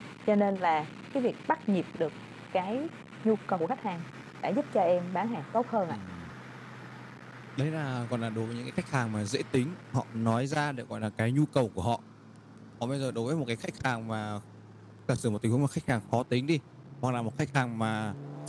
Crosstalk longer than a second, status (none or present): none